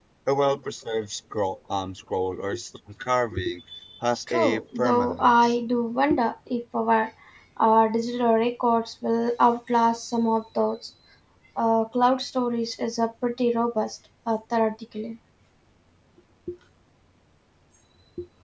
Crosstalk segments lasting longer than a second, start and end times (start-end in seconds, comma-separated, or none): 4.3-5.6